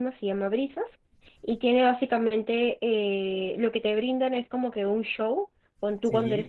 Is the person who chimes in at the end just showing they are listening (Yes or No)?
Yes